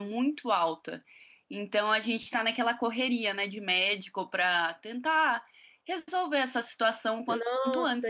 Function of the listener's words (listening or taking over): taking over